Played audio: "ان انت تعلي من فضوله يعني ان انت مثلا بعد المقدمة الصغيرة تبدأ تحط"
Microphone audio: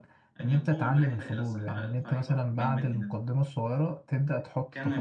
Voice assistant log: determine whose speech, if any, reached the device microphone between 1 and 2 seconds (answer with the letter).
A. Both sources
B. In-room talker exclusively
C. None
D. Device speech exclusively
A